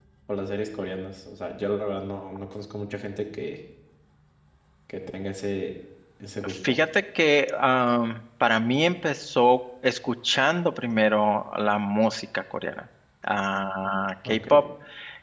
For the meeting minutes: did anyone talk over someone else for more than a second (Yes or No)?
No